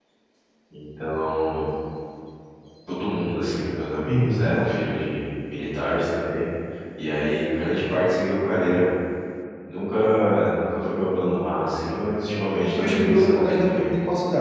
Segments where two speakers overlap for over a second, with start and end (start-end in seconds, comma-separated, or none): 12.6-13.9